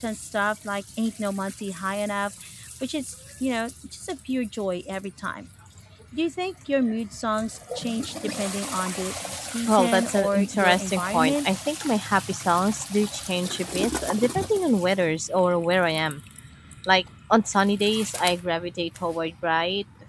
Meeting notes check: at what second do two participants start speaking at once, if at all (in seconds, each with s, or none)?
9.7 s